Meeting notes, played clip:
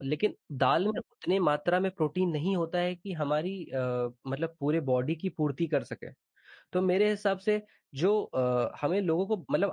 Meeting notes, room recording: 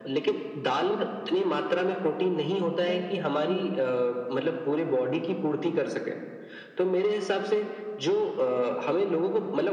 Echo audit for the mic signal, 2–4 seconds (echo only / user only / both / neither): both